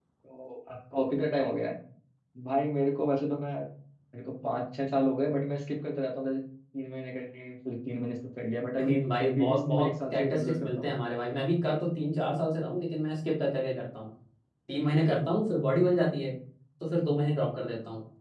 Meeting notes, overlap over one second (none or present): present